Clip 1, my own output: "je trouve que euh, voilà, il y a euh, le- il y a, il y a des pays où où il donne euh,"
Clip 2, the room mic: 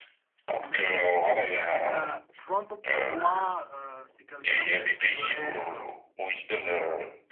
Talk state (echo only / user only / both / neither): both